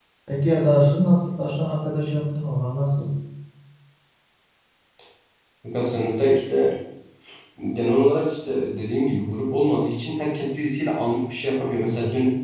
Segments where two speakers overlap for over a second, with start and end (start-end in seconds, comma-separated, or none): none